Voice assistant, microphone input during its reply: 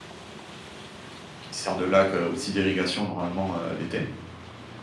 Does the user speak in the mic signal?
Yes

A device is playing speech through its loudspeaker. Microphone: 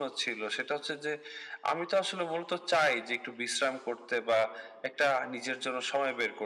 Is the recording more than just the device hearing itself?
No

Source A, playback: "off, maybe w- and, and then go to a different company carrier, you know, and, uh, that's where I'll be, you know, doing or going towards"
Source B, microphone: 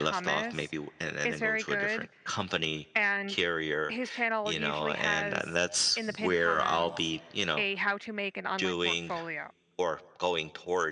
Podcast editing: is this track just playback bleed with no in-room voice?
No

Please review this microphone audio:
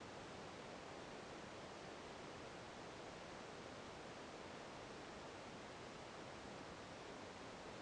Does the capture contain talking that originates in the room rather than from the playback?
No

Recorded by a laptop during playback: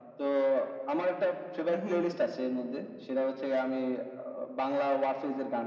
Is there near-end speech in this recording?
Yes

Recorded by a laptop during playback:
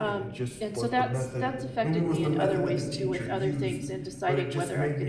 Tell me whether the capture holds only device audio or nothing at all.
No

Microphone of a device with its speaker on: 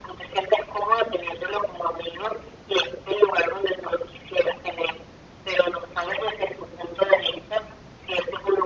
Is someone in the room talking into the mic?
No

